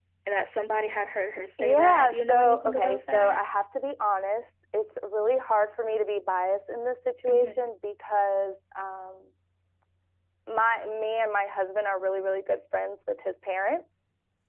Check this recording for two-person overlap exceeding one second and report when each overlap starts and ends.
1.6-3.4

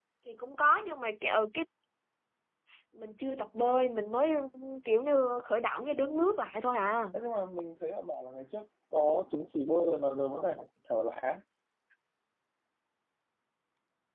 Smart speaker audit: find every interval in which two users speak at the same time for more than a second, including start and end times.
none

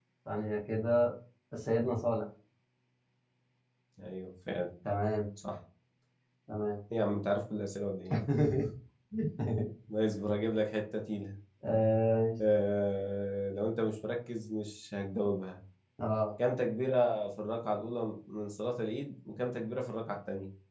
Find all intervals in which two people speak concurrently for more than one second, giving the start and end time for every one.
none

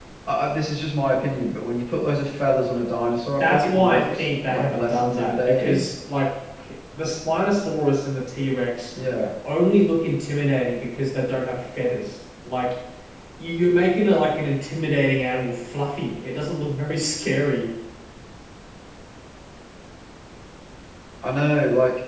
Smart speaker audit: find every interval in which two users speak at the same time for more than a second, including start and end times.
3.4-5.8

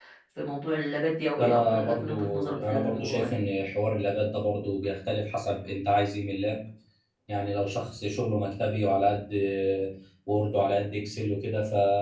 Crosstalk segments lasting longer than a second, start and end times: 1.4-3.3

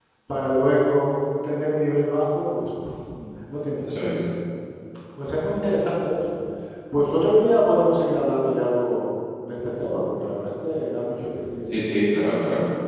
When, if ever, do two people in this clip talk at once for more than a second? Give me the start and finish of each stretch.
none

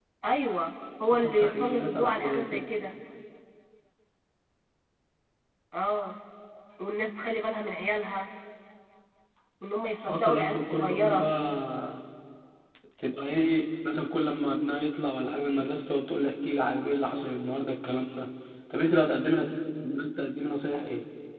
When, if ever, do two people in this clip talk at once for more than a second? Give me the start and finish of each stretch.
1.2-2.6, 10.1-11.3

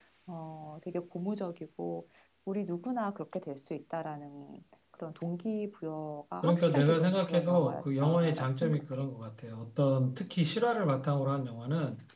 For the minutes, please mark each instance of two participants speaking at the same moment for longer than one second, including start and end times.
6.4-9.1

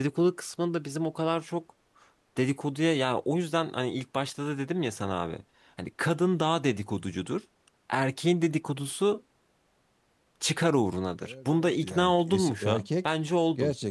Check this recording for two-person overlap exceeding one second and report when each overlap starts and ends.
11.2-13.1

